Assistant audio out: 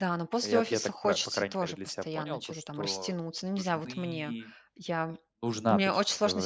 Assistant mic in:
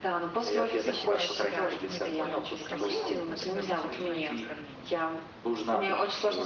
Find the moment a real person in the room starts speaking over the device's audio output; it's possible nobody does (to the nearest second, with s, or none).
1 s